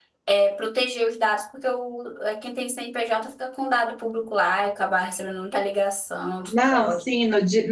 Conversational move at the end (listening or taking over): taking over